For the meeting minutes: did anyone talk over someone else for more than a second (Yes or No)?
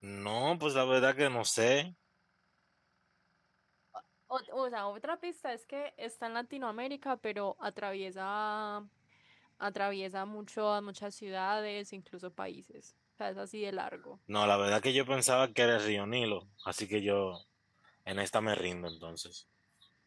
No